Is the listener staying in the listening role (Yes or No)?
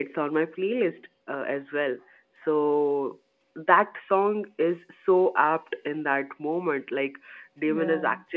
Yes